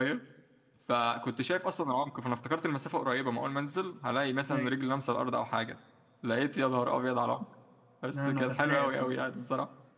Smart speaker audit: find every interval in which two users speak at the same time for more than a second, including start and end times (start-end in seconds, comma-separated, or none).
8.1-9.4